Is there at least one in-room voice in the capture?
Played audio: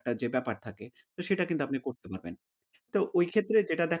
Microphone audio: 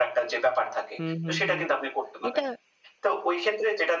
Yes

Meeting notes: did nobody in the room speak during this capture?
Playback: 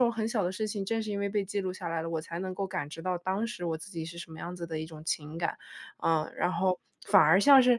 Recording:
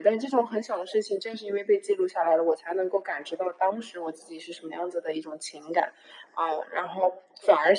Yes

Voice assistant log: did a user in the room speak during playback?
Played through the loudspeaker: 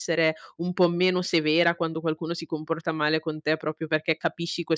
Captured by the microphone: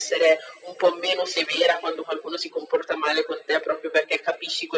No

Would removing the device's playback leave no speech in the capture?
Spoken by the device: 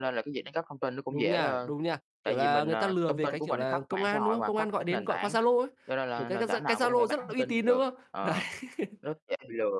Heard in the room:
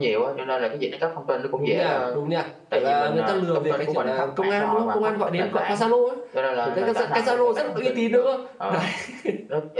Yes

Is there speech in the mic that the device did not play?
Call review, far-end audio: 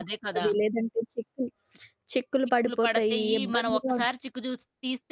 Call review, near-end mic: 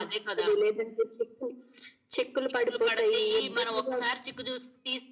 No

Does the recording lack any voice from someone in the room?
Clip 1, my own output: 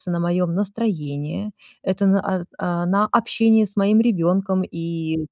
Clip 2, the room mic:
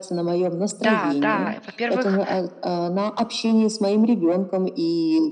No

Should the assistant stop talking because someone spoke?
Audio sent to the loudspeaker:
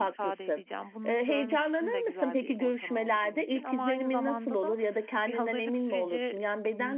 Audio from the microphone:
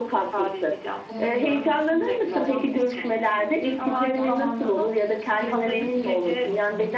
Yes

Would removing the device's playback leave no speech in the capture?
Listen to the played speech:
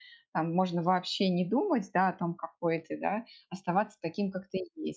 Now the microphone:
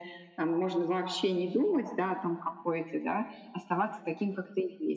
Yes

